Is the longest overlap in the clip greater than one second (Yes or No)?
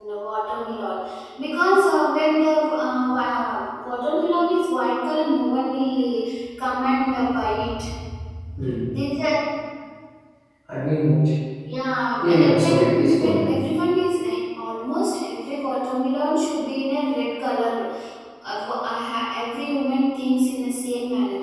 Yes